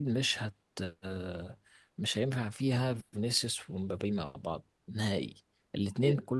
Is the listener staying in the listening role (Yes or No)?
Yes